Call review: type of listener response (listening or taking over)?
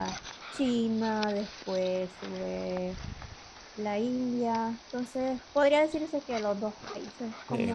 taking over